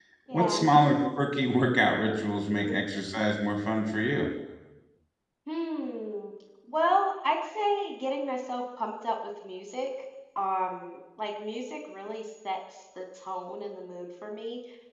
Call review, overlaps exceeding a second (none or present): none